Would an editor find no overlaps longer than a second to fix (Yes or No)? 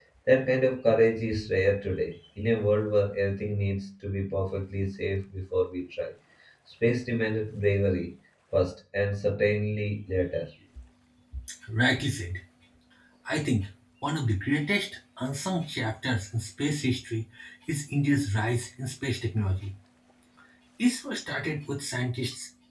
Yes